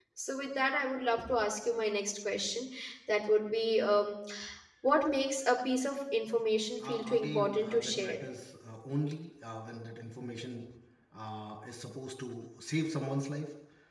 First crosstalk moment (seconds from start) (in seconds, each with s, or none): 6.8 s